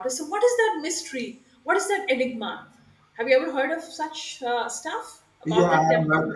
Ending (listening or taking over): taking over